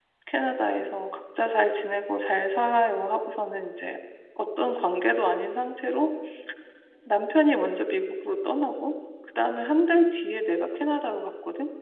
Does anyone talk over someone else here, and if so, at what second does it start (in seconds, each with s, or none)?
none